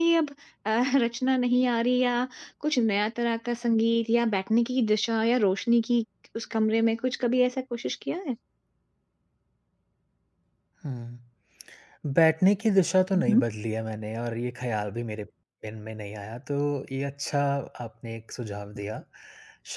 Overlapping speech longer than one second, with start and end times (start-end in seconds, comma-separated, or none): none